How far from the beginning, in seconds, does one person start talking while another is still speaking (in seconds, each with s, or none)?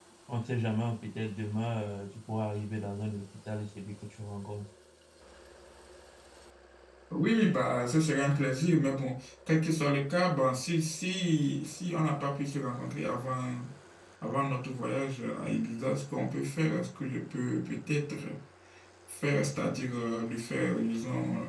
none